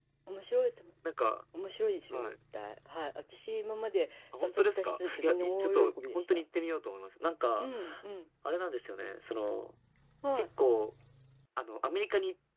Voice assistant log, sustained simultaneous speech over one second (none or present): present